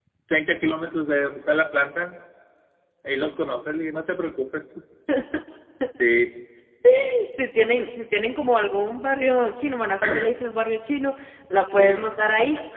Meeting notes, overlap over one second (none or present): none